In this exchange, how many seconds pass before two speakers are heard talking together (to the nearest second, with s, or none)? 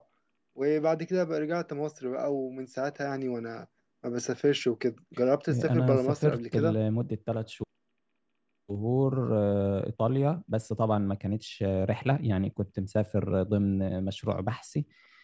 5 s